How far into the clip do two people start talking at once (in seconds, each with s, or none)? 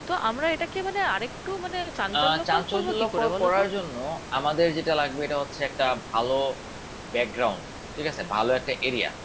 2.1 s